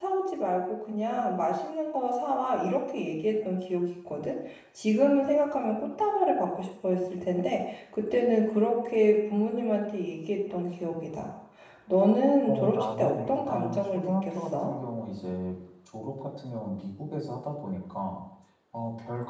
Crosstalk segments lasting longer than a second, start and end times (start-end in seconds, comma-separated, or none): 12.5-14.7